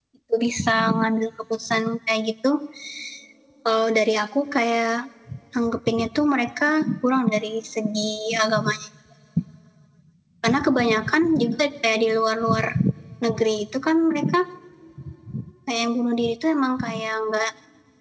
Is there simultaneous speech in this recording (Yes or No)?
No